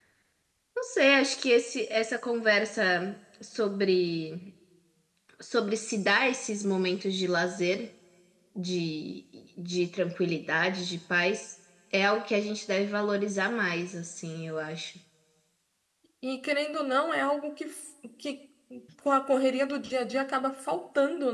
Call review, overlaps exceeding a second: none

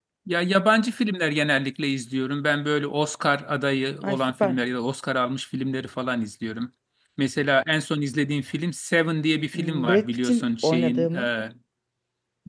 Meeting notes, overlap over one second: present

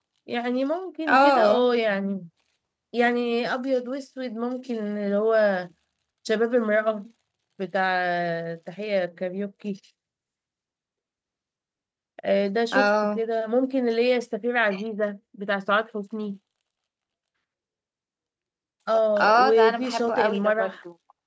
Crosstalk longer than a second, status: present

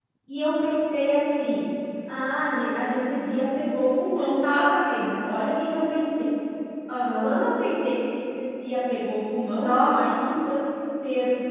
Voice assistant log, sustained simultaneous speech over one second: none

